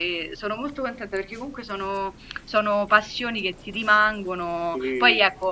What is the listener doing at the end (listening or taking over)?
listening